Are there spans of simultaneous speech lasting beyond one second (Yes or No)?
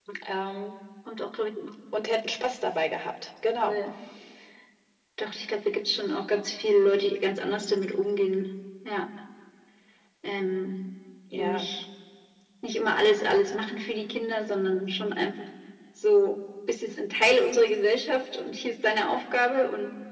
No